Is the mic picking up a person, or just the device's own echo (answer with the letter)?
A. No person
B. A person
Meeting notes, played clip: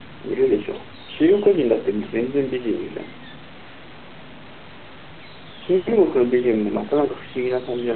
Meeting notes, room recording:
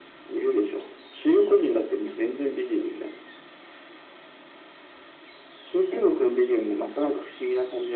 A